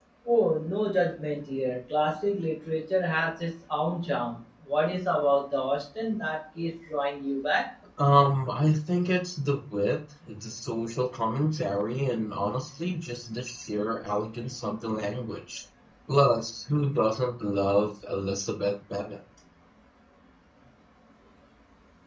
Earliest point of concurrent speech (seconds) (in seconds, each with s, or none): none